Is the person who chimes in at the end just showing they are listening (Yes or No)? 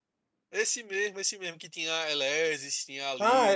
No